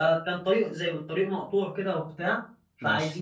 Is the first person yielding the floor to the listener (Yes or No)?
No